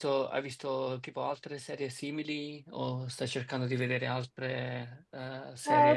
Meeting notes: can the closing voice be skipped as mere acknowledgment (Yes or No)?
No